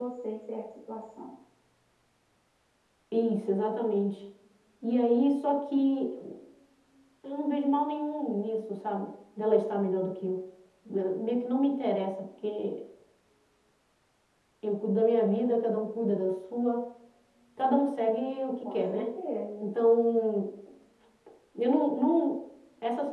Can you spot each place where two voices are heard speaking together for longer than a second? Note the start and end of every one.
none

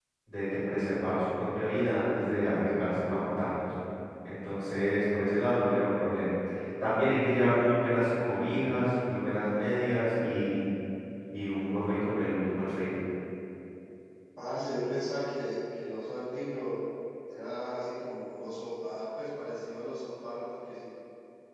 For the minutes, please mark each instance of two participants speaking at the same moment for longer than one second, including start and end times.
none

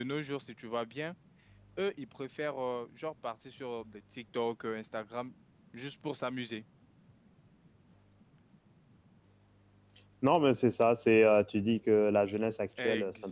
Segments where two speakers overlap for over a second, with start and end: none

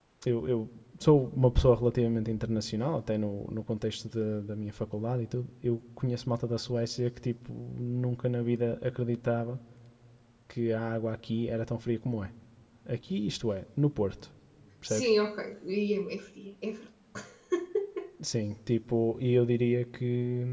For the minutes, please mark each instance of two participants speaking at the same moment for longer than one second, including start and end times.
none

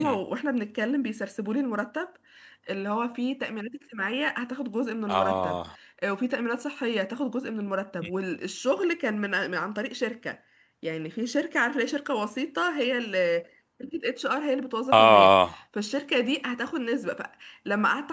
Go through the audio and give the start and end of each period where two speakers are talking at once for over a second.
none

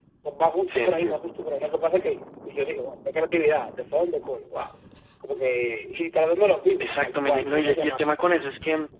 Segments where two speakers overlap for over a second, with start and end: 6.8-8.1

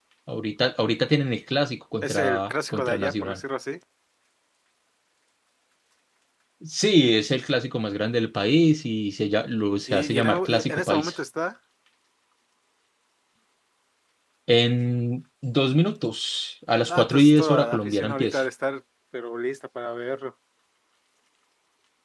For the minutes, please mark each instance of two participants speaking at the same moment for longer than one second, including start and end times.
2.0-3.4, 9.9-11.2, 16.9-18.4

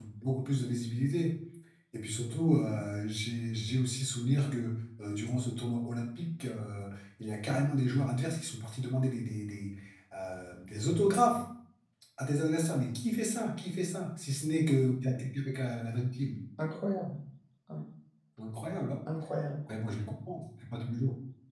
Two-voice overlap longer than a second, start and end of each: none

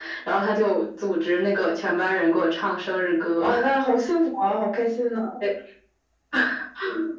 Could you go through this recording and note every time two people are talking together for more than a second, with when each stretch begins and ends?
none

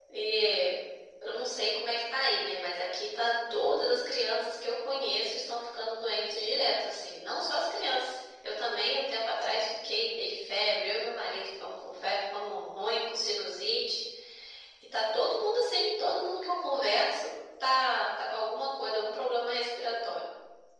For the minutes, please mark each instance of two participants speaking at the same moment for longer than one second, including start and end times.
none

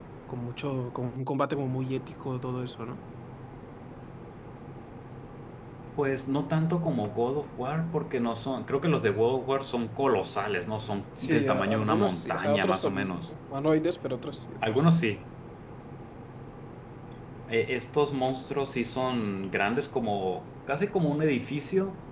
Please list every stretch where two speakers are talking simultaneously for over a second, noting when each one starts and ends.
11.2-13.3

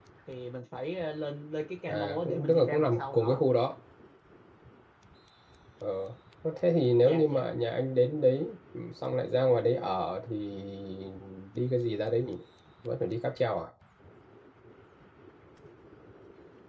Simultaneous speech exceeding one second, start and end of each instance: 1.8-3.4

